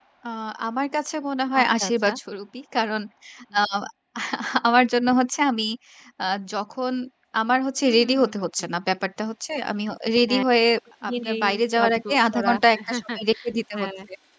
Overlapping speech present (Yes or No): Yes